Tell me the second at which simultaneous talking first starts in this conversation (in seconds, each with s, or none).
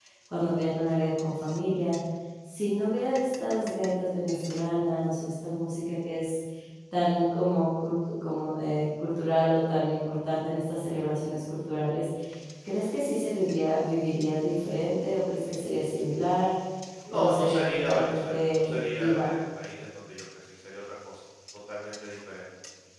17.1 s